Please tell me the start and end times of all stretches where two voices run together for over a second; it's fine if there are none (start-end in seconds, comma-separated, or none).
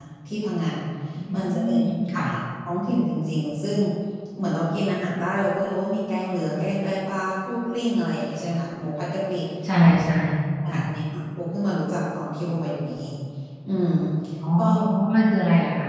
none